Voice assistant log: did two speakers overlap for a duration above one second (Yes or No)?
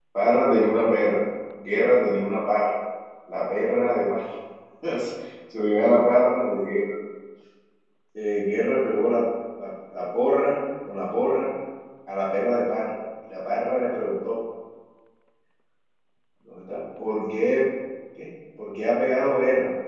No